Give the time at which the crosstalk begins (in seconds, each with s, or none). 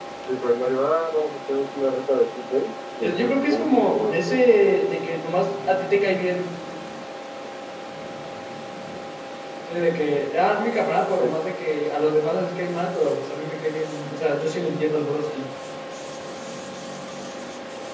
3.0 s